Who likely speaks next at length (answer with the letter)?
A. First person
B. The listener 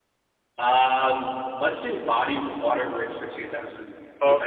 B